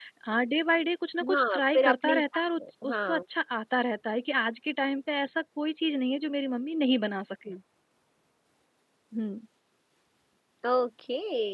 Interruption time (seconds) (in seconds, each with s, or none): 1.3 s